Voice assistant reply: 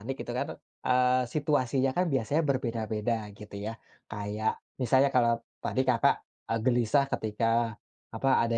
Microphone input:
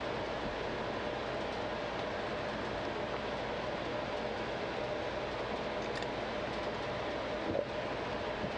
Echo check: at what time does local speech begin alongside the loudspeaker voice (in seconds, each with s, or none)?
none